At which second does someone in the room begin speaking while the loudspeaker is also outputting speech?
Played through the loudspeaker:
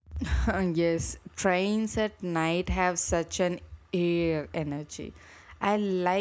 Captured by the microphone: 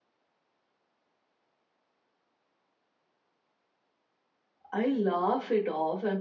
5 s

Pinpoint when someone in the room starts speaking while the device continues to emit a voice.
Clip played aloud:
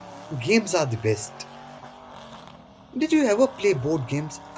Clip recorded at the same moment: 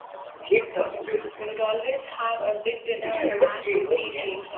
1 s

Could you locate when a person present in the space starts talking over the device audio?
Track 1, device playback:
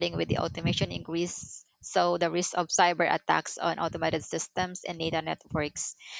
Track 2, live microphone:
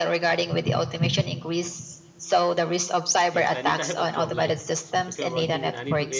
3 s

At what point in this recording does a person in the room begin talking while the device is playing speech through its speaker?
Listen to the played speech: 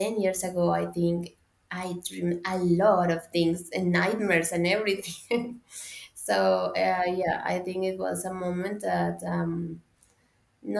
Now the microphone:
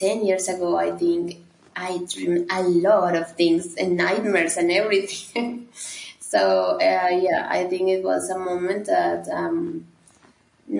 none

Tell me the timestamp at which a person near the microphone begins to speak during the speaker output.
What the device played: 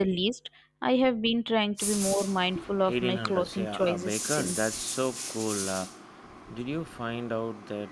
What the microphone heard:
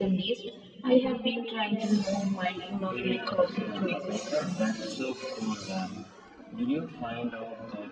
none

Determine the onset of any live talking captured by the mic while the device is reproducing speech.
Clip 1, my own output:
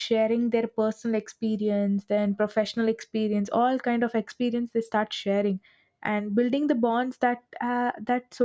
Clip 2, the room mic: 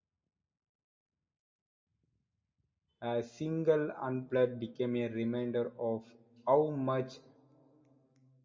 3 s

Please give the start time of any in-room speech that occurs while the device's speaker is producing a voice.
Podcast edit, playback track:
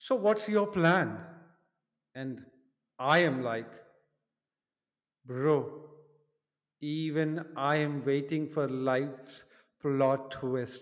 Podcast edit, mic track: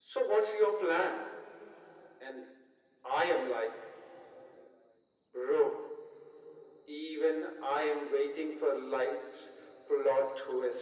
none

